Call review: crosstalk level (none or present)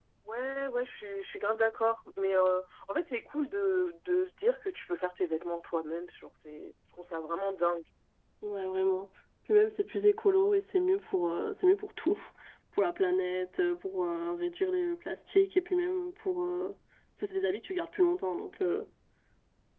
none